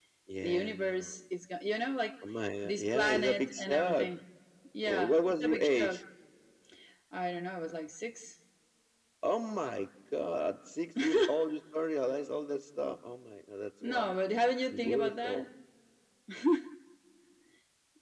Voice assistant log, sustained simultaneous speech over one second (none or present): present